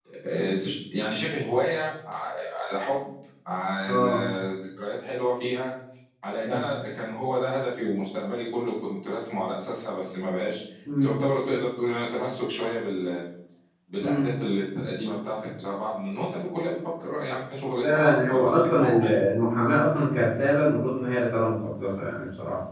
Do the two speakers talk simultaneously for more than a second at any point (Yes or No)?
Yes